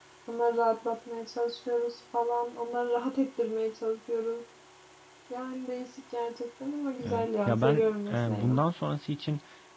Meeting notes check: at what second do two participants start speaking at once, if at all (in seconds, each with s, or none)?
7.0 s